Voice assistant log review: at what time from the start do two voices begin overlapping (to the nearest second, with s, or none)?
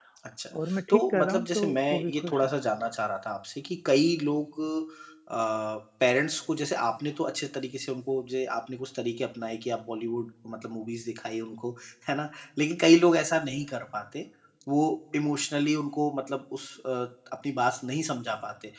1 s